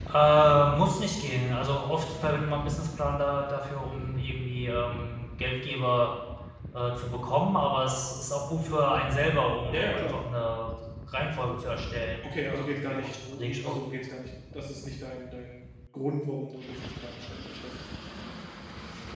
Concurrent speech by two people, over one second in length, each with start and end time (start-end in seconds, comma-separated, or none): 12.5-13.8